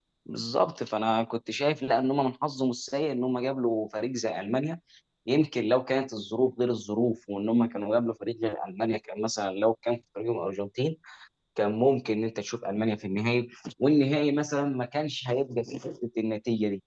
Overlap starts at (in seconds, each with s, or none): none